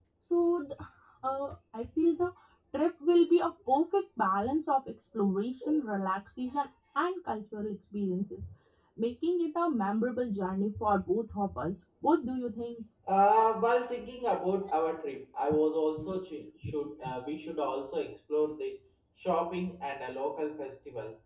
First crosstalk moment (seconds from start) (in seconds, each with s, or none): none